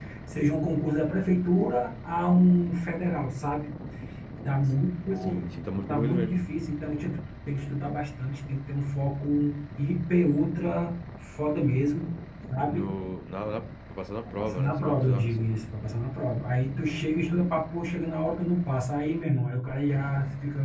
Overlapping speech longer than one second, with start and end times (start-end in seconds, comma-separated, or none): 14.3-15.5